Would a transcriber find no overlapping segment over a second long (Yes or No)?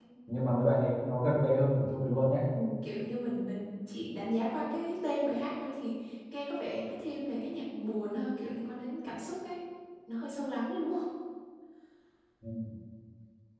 Yes